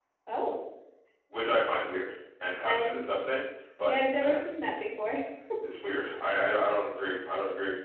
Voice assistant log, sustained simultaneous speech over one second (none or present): none